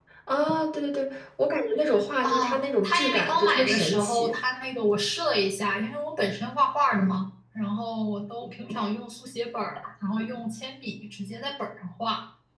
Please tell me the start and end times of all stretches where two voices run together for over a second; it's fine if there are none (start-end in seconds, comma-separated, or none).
2.2-4.4